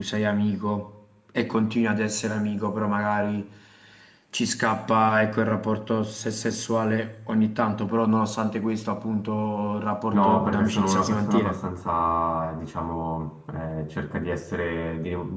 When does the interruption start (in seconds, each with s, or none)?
10.1 s